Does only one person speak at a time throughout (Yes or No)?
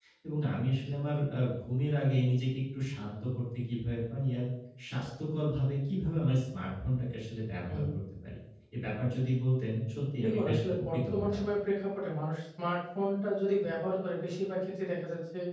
No